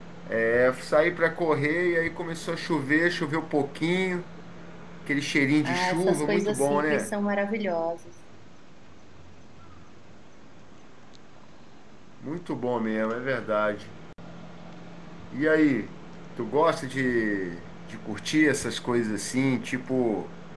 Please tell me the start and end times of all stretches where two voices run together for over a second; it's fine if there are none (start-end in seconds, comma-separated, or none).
5.7-7.1